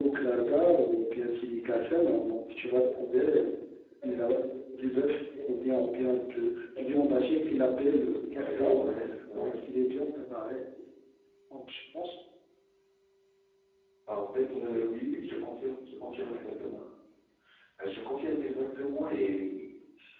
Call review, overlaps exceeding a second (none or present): none